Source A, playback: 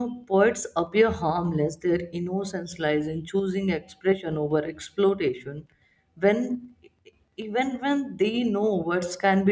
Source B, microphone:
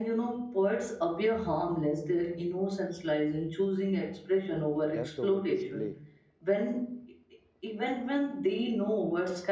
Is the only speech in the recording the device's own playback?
No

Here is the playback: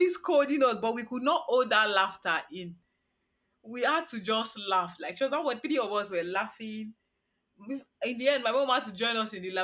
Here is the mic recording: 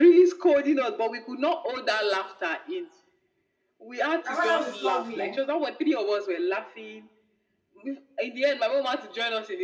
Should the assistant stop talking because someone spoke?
Yes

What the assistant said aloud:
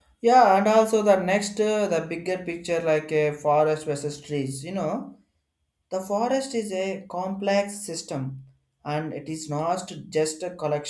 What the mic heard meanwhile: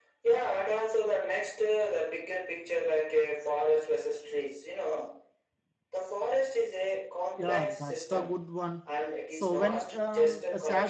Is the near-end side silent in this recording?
No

